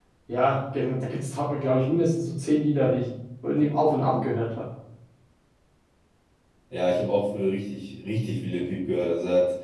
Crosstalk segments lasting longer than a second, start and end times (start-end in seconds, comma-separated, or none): none